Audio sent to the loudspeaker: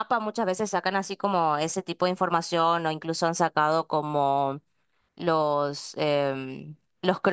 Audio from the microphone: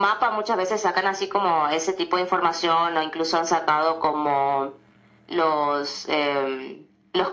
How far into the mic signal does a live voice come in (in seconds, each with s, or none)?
none